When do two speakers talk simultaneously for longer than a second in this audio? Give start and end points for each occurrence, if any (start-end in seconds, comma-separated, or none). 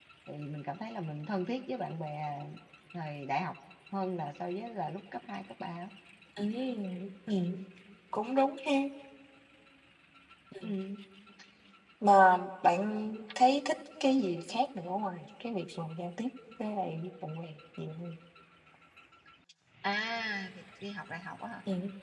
none